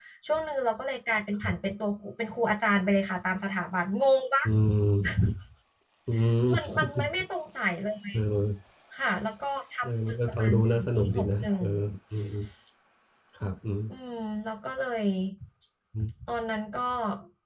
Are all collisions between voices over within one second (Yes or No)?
No